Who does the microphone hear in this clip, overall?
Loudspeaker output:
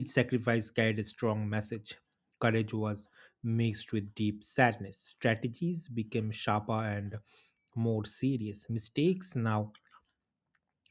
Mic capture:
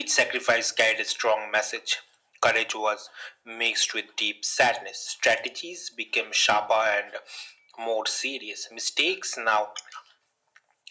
echo only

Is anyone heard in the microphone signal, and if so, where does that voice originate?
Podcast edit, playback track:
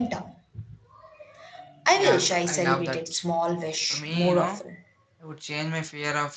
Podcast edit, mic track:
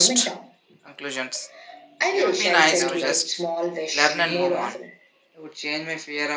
both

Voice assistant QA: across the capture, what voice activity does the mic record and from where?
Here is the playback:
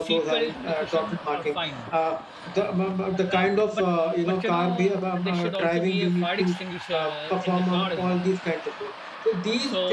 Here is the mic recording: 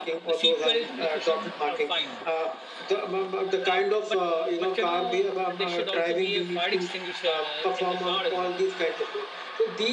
echo only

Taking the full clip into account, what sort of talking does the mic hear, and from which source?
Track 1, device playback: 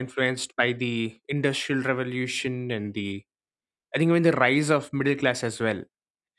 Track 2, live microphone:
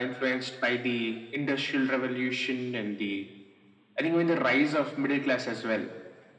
echo only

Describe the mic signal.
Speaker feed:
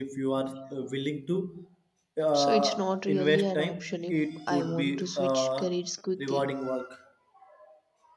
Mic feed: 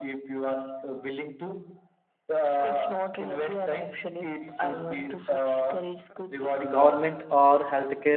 both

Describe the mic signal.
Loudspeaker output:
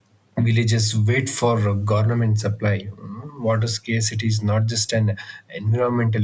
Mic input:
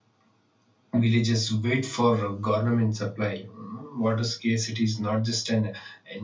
echo only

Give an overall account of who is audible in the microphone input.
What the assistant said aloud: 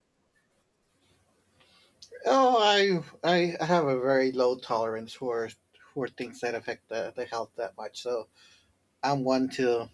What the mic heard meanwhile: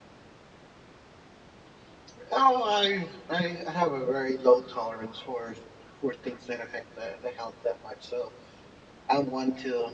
echo only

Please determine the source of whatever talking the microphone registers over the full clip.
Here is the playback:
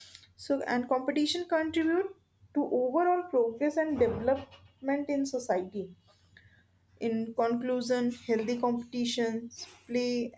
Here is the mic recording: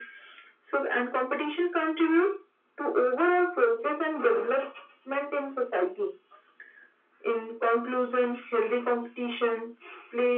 echo only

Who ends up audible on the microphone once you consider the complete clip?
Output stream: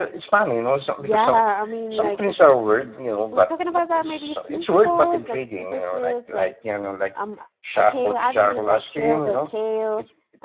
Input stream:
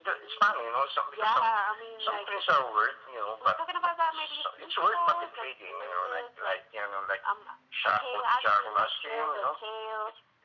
echo only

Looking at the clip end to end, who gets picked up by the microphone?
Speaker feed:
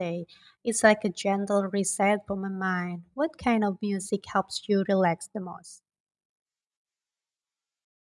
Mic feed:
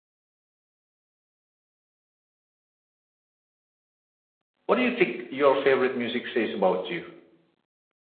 user only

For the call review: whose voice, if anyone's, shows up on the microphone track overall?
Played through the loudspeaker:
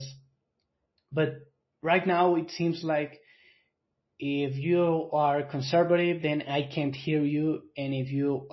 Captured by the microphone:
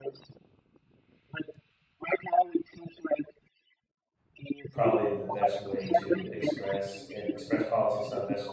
both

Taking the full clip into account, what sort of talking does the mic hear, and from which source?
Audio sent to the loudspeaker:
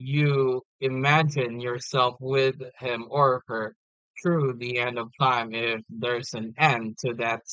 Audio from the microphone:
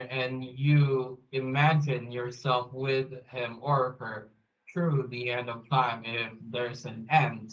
echo only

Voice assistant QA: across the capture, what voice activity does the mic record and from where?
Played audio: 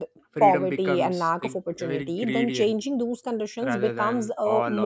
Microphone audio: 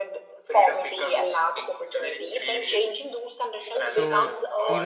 both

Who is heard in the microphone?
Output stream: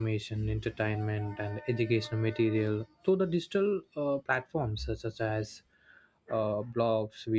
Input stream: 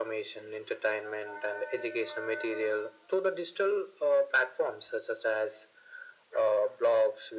echo only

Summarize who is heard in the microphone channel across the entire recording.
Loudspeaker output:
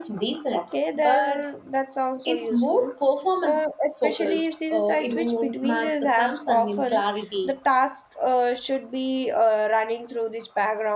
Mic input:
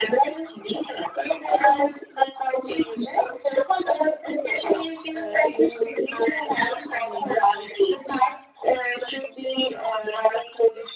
echo only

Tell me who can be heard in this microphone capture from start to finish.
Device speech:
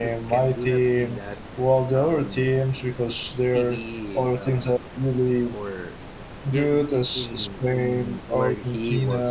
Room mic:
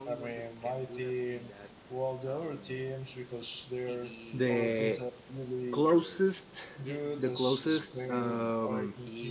both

